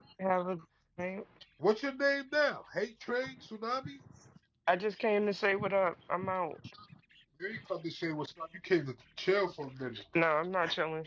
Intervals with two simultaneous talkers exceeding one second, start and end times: none

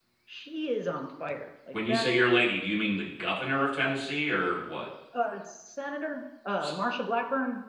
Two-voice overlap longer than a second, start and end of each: none

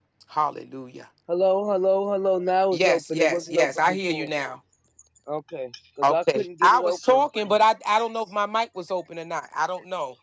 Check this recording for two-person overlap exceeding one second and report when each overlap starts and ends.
2.7-4.3, 6.0-7.2

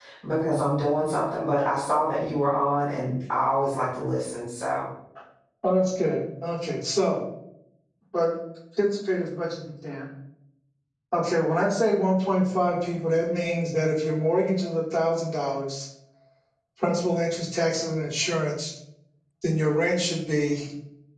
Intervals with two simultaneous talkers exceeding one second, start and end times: none

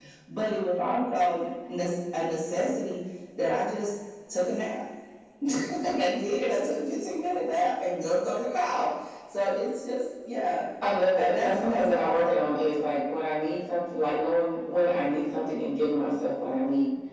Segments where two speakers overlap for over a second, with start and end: 11.2-13.0

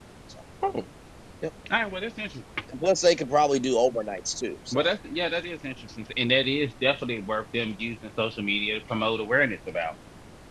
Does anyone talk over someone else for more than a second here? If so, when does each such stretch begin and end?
none

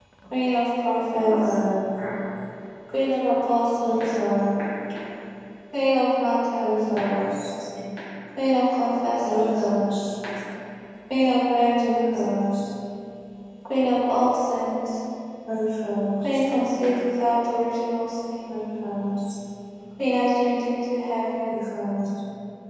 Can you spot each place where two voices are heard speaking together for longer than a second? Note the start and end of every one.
none

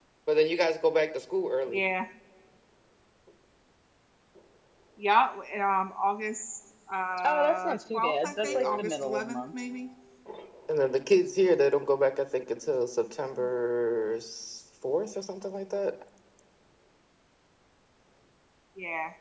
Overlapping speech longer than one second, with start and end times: 7.2-9.5

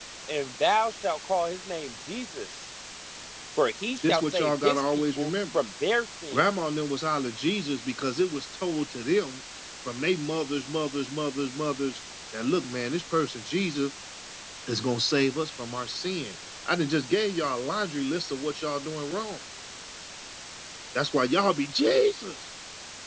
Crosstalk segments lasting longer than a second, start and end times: 4.0-5.6

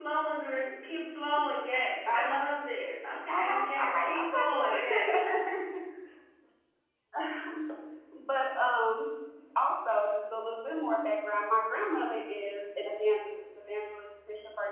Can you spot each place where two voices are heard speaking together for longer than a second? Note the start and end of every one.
3.3-5.1

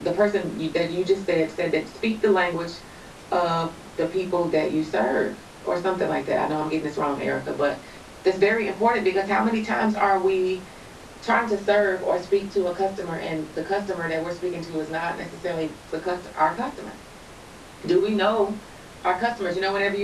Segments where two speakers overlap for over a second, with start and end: none

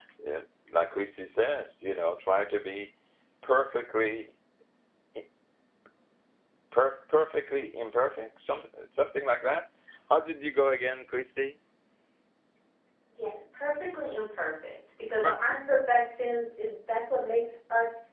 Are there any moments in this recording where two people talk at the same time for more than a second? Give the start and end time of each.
none

